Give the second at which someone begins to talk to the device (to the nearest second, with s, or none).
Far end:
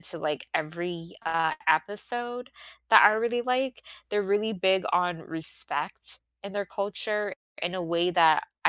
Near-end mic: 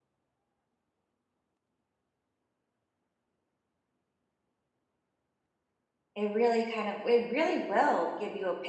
6 s